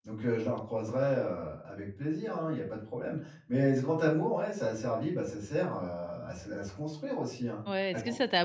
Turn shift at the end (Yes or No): Yes